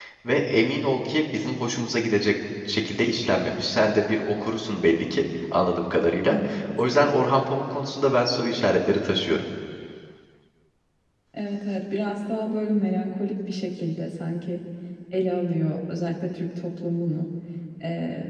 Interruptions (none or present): none